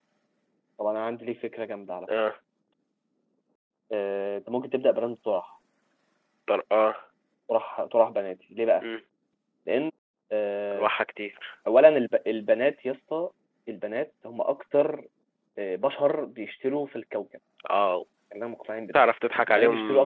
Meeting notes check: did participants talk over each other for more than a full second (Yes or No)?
No